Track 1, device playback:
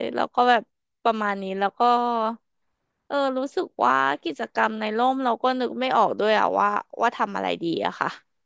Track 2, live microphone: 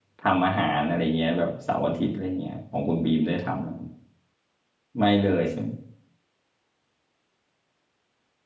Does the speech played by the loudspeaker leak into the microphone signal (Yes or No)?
No